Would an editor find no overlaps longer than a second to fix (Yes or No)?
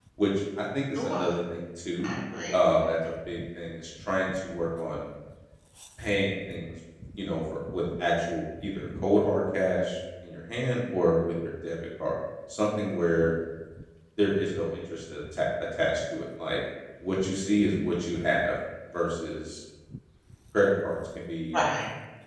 Yes